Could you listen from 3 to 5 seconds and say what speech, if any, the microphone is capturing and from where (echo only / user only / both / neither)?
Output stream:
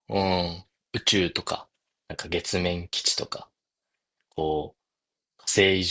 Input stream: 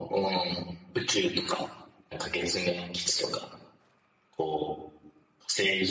echo only